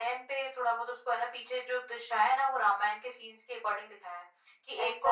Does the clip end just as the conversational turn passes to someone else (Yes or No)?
No